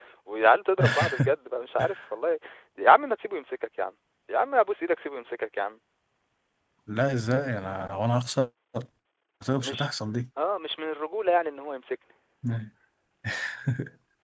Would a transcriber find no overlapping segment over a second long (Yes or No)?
Yes